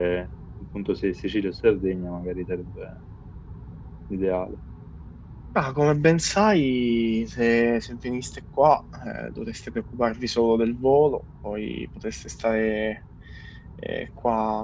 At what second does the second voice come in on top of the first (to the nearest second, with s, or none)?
none